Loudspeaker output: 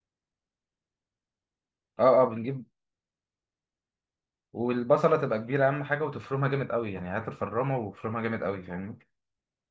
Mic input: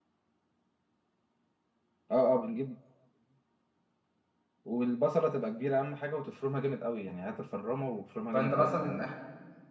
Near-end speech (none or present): present